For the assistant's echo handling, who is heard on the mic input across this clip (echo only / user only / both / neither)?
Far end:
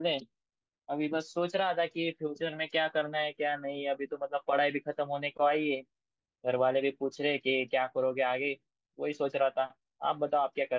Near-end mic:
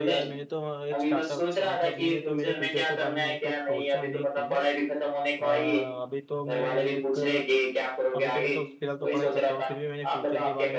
both